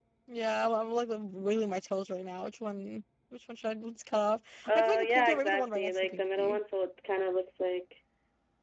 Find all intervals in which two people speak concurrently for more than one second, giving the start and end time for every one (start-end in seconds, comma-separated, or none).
4.7-6.6